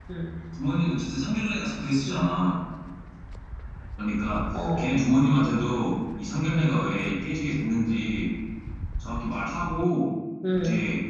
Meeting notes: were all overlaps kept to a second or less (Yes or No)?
Yes